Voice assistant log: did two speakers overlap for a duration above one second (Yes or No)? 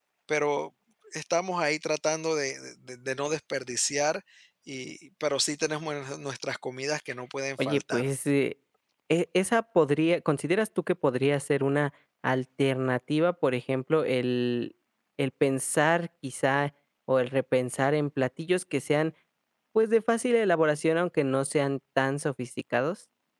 No